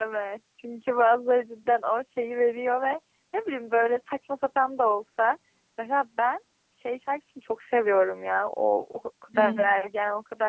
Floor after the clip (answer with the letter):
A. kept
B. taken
A